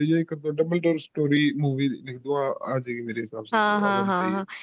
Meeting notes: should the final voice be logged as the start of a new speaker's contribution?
Yes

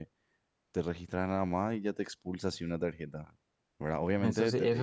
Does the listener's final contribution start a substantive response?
Yes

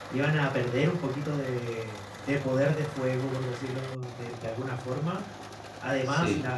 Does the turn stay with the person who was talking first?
Yes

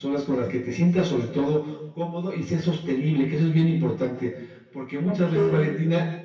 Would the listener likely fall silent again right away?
Yes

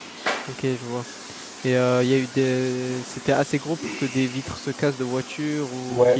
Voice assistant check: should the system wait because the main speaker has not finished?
No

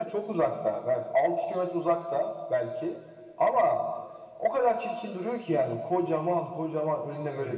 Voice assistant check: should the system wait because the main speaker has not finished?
Yes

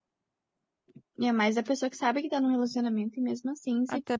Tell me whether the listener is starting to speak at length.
Yes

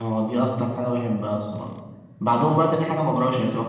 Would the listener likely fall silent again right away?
Yes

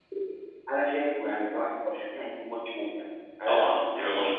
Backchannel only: No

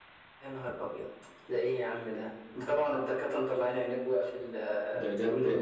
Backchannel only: No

